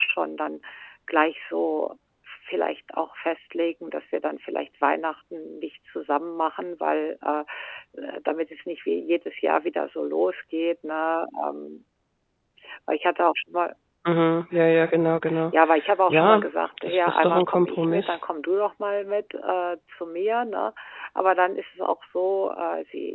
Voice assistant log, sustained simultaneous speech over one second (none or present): present